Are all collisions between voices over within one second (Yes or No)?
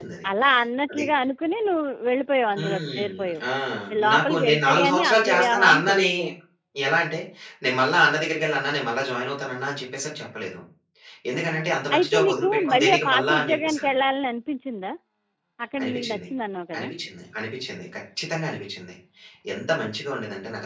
No